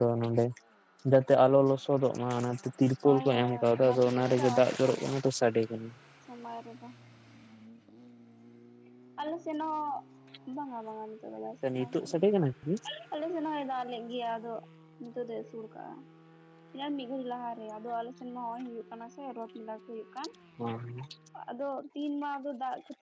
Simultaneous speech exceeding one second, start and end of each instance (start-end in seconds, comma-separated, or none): 3.0-5.0